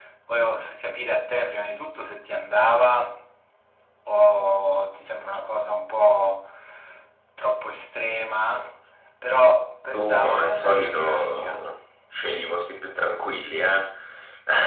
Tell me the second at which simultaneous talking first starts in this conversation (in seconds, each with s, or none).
9.9 s